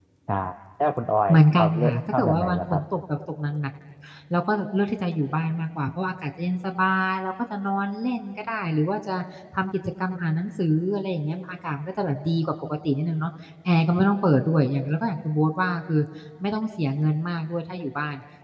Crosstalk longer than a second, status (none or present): present